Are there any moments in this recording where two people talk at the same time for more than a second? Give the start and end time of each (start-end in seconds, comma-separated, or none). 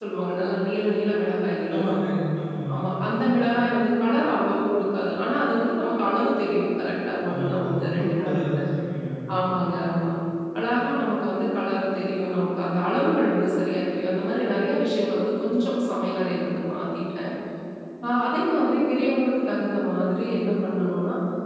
7.3-8.6